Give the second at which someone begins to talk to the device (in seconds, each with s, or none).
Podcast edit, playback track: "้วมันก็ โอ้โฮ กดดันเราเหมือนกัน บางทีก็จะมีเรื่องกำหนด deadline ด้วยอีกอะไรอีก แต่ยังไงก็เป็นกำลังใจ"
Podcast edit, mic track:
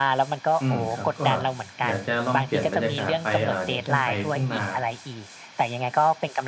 0.6 s